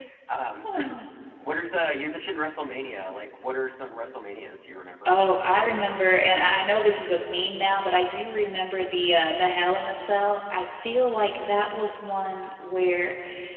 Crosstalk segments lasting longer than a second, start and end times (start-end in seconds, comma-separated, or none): none